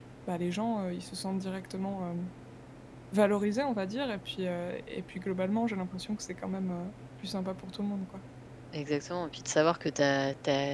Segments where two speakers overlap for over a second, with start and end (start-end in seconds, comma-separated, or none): none